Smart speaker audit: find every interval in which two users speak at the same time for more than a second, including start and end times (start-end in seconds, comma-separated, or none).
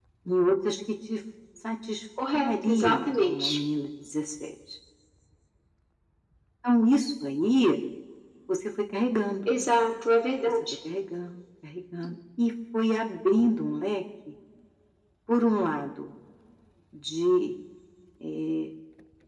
2.3-3.6